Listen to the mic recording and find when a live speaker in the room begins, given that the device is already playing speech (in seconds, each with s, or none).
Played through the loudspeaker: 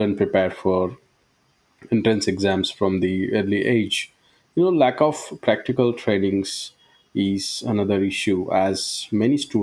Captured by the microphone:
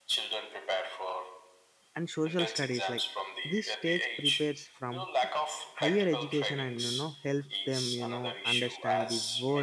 1.9 s